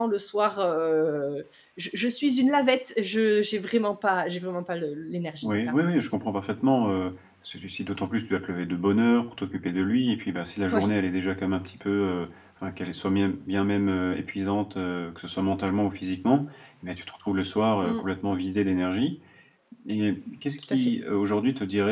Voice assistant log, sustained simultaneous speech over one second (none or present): none